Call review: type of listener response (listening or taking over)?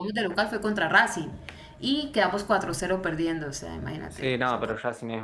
taking over